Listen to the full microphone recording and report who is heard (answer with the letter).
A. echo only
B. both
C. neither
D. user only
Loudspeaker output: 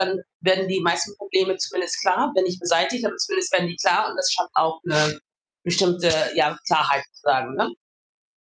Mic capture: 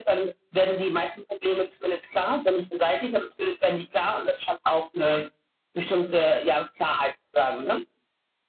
A